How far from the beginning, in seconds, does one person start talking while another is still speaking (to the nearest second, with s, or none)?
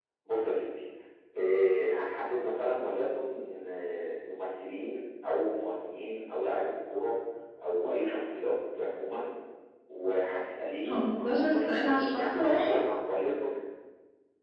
11 s